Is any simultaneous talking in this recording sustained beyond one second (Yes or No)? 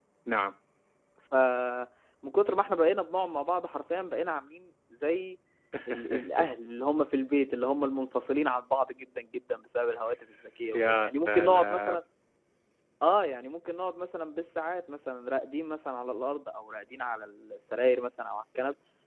Yes